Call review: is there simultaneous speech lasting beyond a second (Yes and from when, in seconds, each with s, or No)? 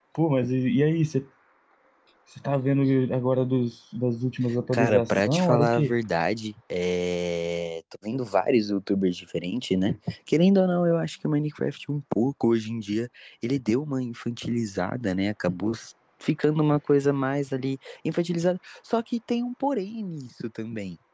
Yes, from 4.7 s